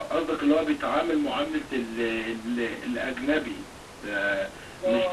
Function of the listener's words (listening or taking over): listening